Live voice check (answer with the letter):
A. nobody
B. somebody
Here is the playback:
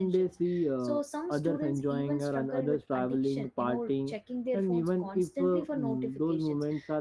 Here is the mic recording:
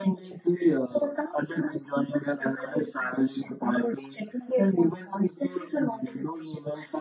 A